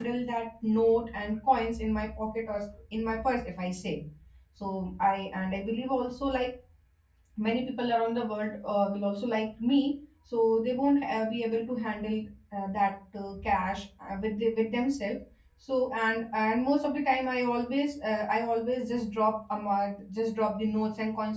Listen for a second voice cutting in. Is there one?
No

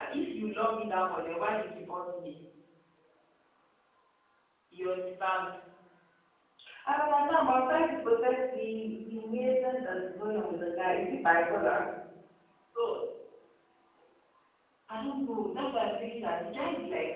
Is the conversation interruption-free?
Yes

